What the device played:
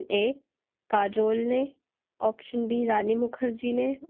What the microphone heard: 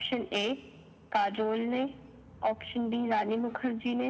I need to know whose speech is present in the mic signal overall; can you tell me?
echo only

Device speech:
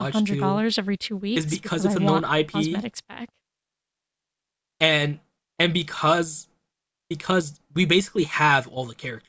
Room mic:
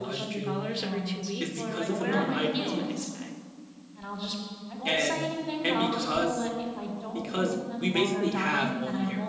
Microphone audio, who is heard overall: both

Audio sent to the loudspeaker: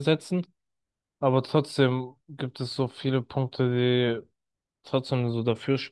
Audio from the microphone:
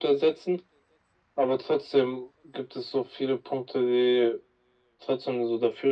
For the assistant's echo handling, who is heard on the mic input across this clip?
echo only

